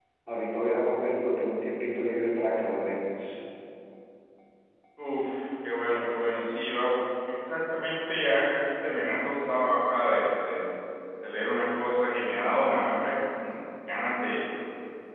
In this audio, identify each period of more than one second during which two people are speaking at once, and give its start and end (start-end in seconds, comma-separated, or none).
none